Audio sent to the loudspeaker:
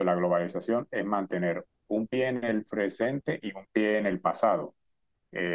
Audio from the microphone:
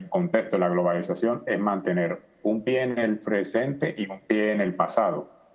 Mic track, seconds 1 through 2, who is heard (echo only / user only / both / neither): echo only